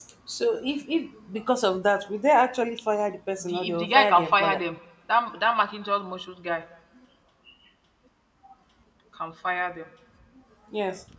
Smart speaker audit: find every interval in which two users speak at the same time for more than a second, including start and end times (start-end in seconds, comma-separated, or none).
3.4-4.6